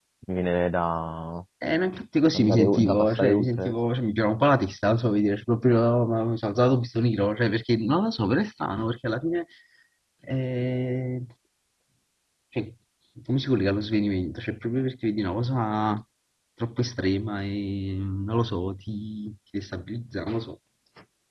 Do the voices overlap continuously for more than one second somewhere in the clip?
Yes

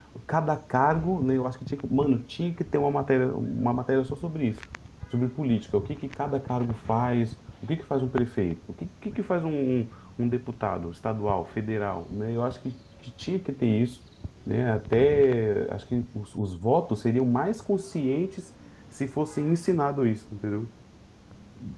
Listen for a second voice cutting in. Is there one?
No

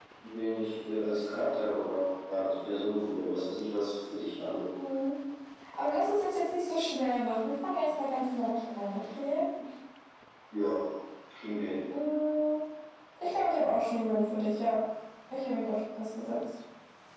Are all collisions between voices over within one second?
Yes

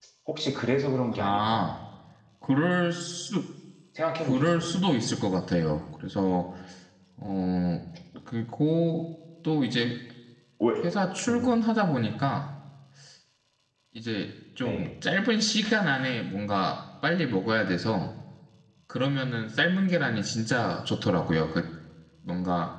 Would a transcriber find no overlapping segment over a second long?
Yes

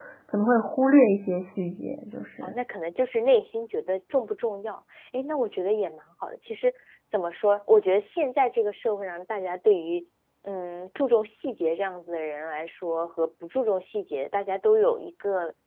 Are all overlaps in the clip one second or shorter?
Yes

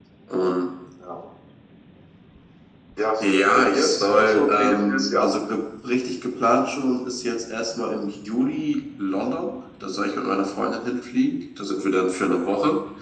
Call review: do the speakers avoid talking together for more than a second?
No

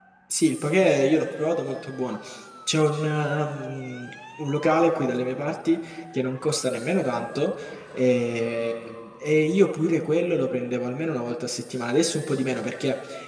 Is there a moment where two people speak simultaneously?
No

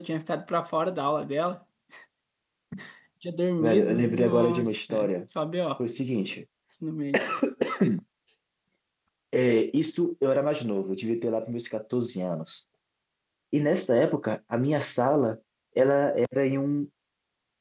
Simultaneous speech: Yes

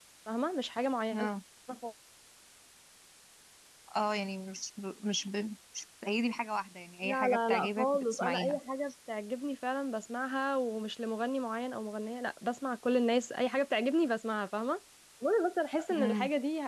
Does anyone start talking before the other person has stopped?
Yes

